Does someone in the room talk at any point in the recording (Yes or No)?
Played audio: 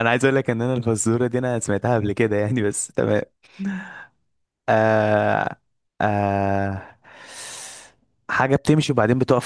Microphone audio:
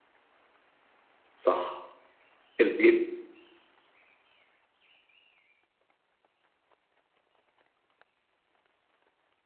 Yes